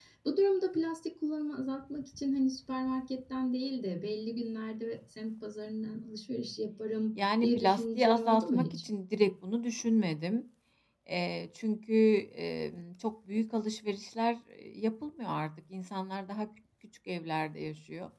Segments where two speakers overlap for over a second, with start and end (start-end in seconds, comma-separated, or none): 7.4-8.8